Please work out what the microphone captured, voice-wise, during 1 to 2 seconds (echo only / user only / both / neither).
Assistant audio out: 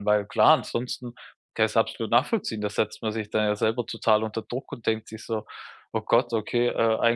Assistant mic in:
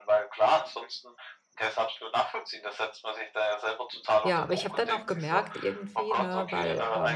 echo only